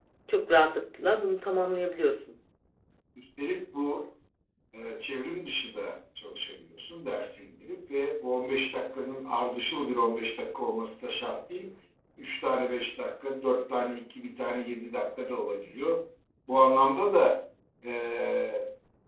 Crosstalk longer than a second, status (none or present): none